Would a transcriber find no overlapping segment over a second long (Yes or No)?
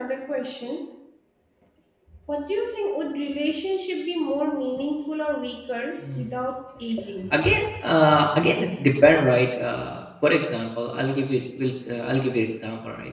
Yes